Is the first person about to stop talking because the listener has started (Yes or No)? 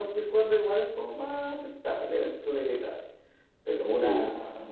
No